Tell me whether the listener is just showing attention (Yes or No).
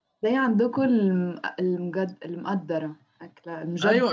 No